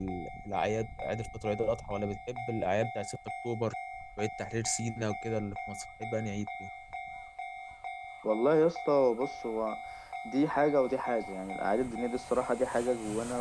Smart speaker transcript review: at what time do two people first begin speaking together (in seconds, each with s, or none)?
none